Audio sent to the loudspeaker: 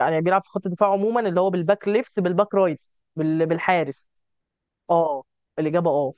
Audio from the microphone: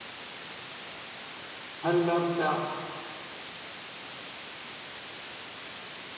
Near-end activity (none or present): present